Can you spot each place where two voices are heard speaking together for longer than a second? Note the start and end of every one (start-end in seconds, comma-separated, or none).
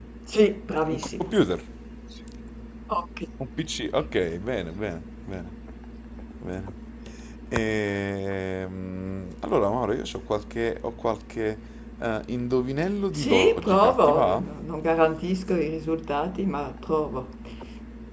13.2-14.4